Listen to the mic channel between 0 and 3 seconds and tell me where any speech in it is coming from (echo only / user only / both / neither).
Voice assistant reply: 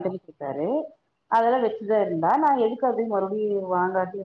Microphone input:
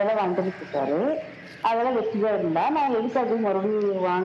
echo only